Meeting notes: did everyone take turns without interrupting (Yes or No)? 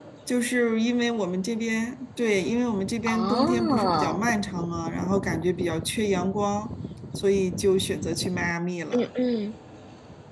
No